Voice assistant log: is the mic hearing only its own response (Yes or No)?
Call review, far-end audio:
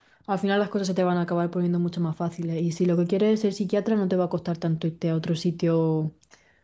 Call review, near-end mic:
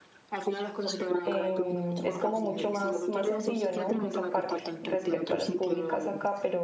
No